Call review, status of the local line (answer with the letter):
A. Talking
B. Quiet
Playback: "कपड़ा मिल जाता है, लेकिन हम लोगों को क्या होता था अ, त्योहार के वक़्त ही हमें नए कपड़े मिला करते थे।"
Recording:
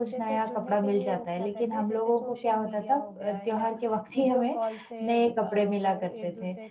A